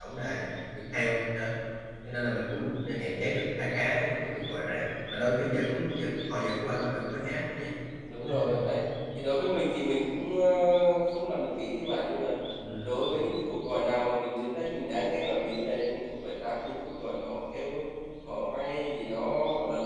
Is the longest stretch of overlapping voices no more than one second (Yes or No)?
Yes